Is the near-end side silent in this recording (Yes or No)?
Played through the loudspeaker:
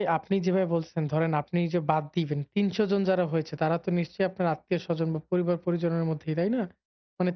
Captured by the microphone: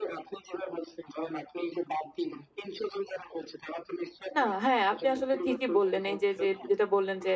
No